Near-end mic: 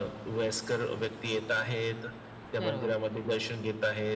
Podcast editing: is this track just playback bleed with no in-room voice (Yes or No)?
No